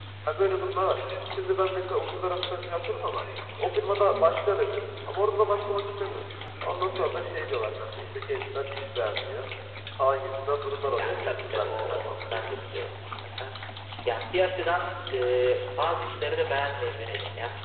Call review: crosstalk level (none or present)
present